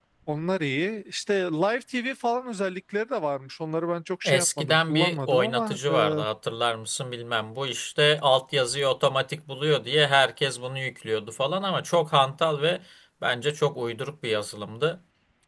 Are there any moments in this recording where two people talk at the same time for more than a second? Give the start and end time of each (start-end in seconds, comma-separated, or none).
4.2-6.2